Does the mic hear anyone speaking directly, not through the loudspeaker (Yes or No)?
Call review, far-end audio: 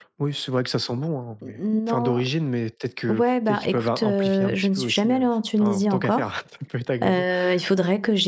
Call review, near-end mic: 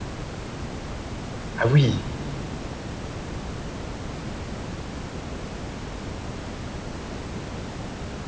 Yes